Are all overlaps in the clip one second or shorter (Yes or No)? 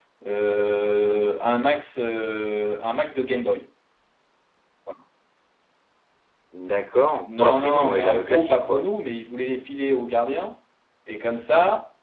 No